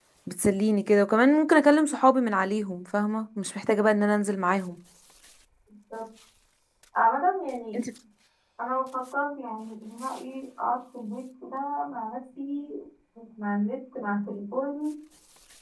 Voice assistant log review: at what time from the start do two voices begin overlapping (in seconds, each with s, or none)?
none